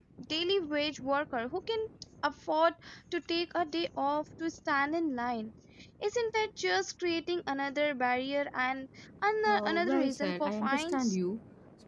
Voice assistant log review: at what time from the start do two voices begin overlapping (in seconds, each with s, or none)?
9.5 s